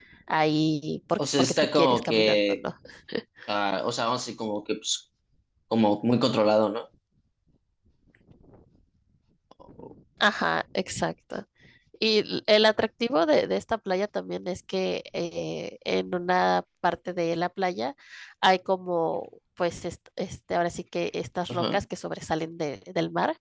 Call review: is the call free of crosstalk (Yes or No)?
No